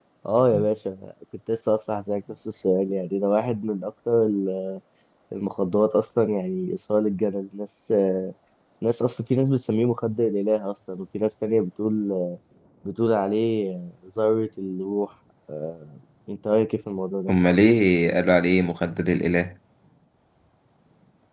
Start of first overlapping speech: none

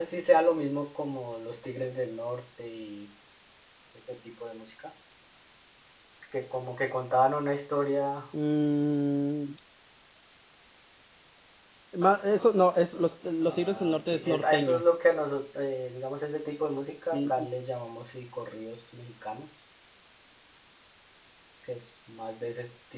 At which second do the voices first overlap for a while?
13 s

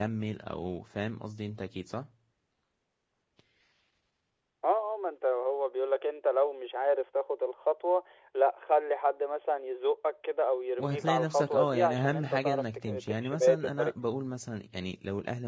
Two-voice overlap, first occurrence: 11 s

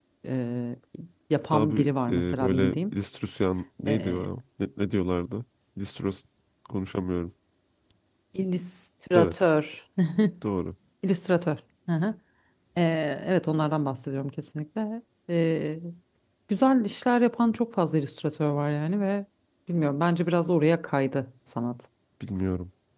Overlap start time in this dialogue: 2 s

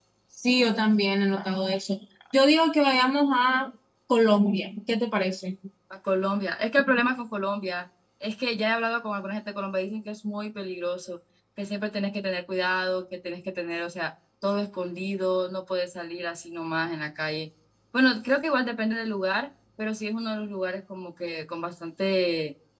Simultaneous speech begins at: none

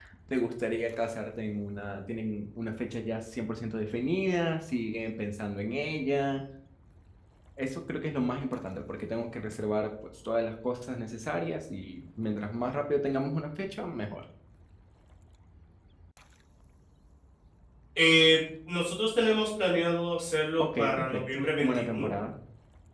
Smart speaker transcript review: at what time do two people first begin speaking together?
21 s

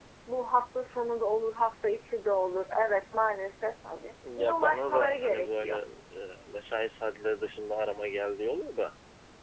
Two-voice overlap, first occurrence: 4 s

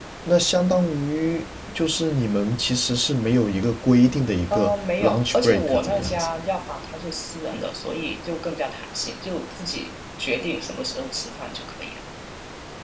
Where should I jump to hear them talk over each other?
5 s

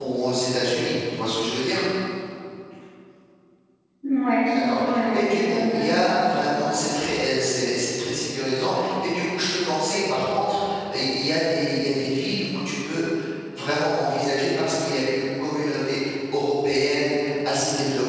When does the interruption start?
5 s

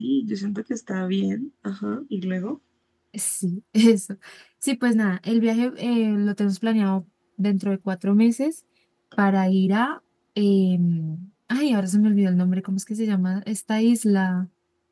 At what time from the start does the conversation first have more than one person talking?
none

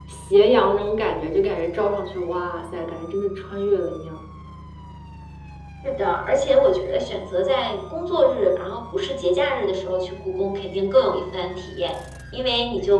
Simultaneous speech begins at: none

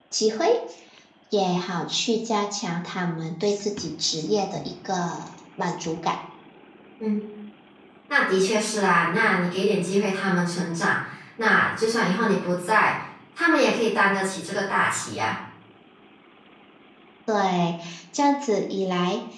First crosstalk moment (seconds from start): none

